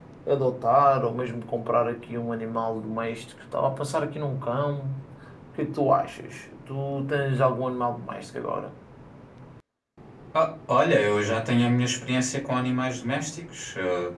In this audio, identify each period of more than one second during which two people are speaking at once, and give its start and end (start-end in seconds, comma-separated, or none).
none